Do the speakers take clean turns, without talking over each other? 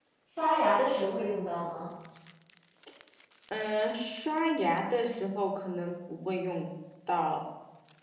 Yes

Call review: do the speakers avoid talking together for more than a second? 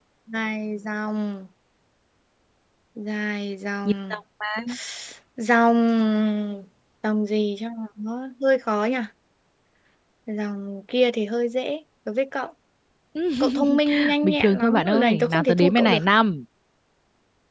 No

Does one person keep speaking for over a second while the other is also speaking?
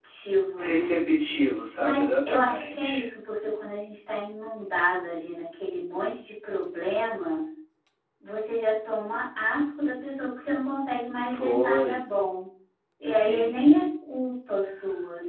Yes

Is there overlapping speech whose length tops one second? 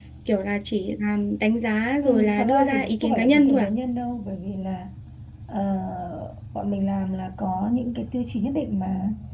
Yes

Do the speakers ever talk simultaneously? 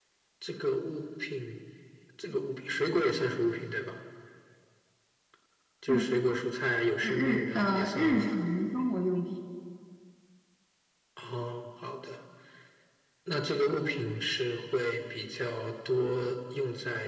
Yes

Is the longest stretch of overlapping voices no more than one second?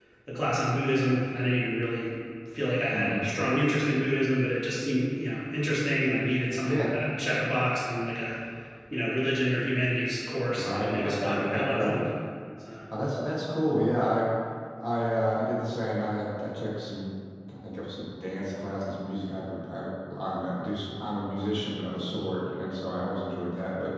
No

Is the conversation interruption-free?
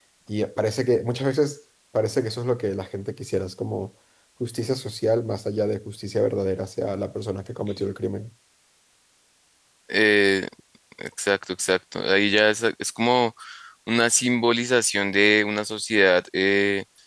Yes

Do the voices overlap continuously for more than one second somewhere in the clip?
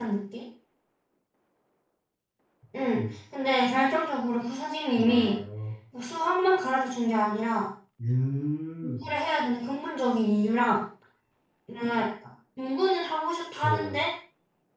No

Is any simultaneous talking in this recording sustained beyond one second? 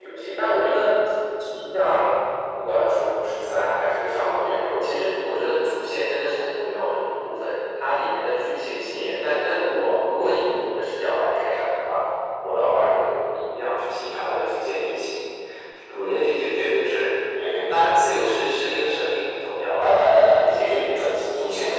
Yes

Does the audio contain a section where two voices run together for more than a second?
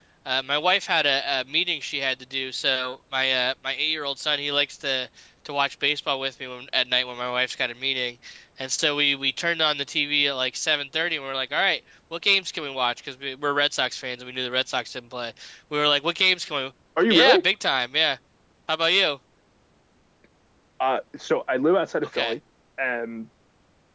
No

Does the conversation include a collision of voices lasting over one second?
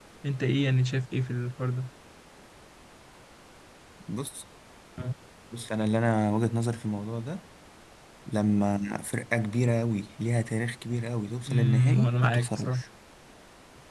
Yes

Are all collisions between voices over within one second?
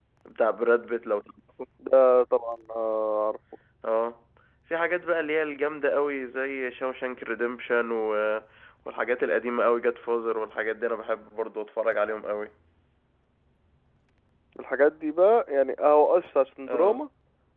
Yes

